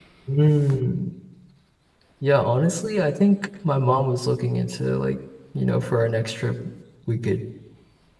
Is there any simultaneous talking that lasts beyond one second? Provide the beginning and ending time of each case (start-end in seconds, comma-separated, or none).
none